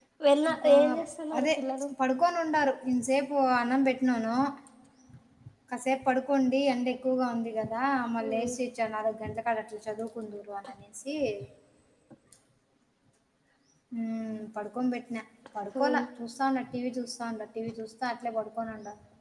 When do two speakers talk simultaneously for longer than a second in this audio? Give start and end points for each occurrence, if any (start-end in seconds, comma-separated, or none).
none